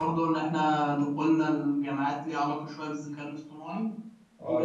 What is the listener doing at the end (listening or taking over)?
taking over